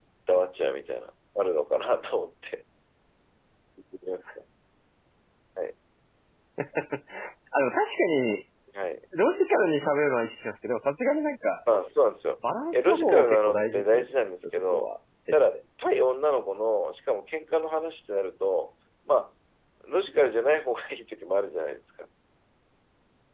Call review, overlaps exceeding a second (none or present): present